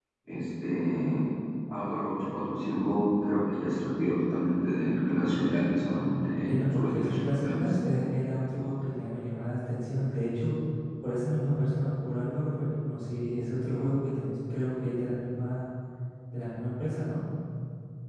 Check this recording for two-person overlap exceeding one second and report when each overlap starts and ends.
5.9-7.7

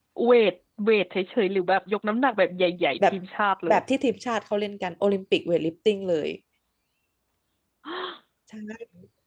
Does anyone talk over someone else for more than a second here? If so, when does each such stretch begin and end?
none

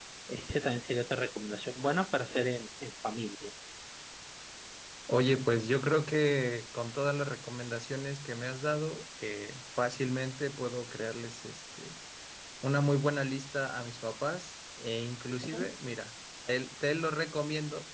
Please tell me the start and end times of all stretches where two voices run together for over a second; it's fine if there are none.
none

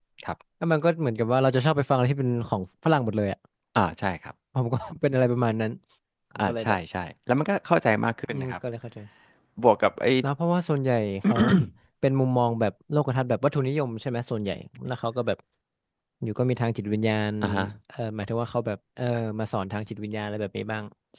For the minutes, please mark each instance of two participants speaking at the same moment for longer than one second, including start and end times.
none

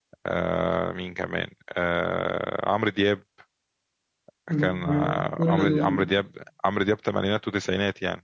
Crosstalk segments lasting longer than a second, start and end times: 4.6-6.0

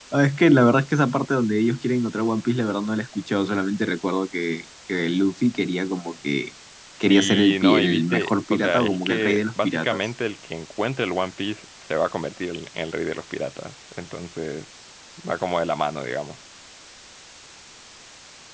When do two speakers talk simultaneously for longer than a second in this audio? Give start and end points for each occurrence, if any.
7.1-10.1

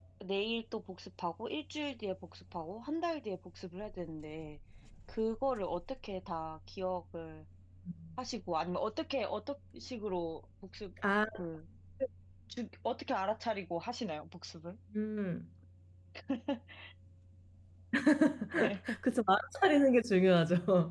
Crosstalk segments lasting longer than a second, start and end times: none

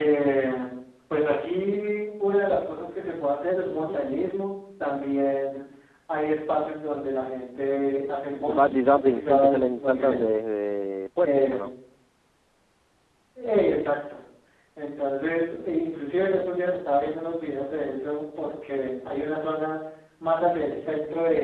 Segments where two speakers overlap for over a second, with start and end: 8.4-10.2

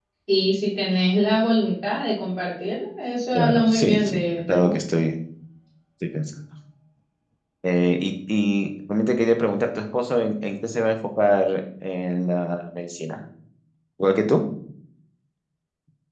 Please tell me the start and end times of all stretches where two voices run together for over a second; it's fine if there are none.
3.4-4.7

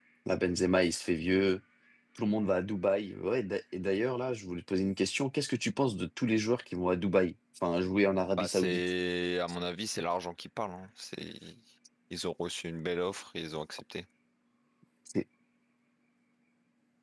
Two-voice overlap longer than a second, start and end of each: none

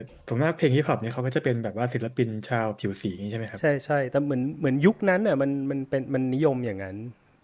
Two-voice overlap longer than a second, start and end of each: none

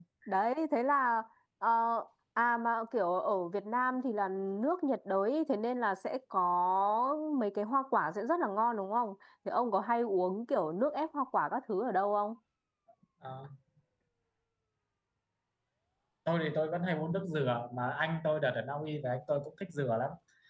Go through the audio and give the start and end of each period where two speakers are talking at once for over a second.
none

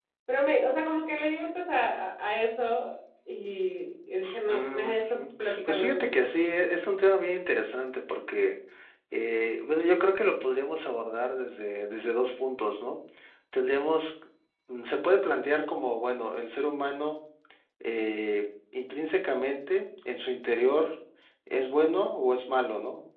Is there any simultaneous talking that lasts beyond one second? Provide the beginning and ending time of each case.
4.5-6.2

